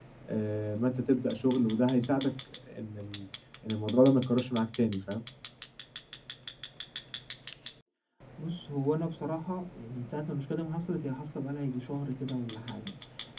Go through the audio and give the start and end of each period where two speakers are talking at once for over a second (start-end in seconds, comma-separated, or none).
none